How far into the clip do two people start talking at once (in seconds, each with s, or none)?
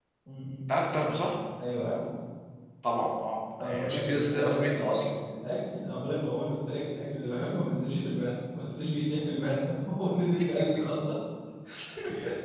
3.6 s